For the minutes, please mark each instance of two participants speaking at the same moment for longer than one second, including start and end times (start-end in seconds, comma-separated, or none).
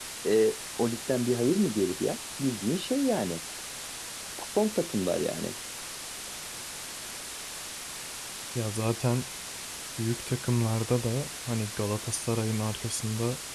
none